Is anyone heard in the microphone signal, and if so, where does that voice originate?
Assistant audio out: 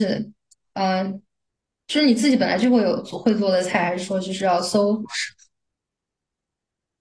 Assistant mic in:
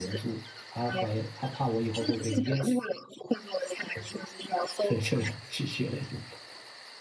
both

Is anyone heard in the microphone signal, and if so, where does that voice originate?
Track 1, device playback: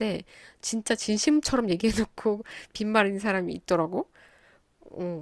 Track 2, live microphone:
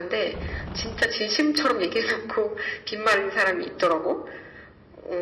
echo only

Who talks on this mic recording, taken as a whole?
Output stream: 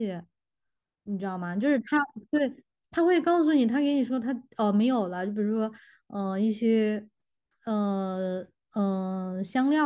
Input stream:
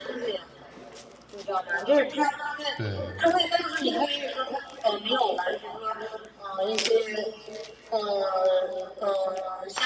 both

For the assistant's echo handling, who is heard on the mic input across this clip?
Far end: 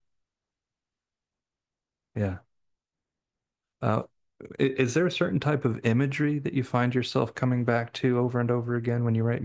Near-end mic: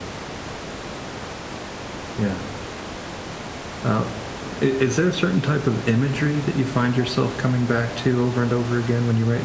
echo only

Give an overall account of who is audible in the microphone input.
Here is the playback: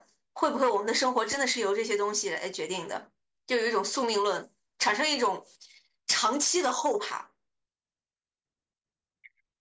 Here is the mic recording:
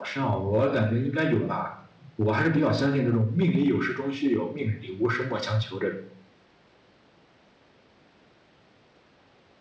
user only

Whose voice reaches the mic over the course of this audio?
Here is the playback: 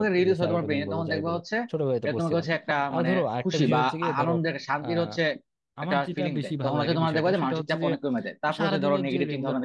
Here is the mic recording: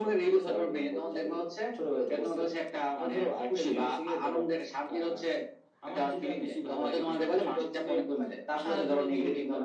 echo only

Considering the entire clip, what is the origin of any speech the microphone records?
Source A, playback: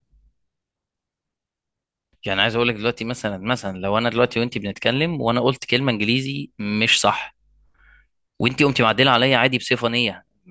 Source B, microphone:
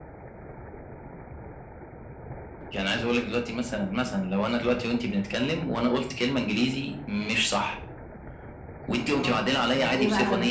both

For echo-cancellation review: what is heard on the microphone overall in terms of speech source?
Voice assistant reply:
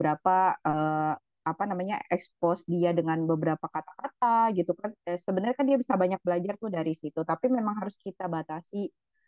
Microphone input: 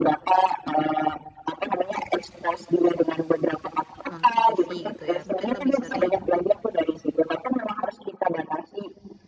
both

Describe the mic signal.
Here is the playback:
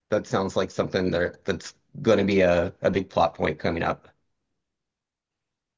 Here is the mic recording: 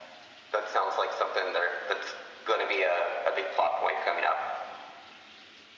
echo only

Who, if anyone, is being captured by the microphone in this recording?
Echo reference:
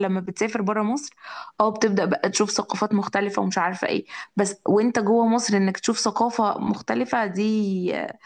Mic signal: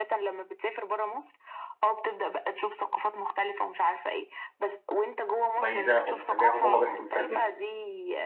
both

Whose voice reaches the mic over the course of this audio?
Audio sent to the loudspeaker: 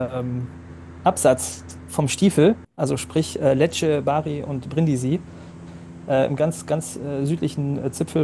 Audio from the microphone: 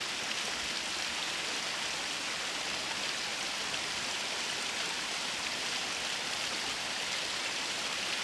neither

